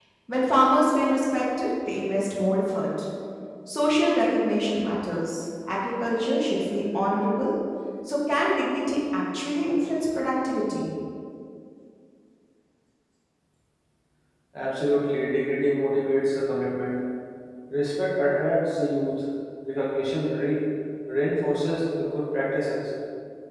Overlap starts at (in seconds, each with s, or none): none